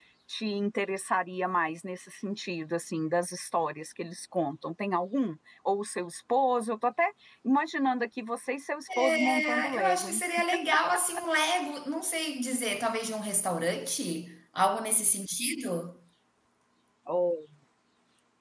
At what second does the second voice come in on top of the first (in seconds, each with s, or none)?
8.9 s